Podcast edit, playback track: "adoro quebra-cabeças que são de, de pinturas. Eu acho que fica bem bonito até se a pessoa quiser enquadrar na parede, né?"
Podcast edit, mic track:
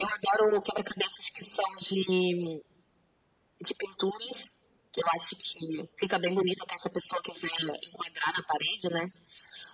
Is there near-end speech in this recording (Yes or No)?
No